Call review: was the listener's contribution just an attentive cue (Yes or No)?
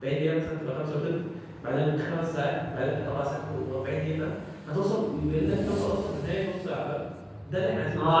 No